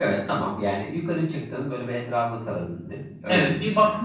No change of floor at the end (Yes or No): No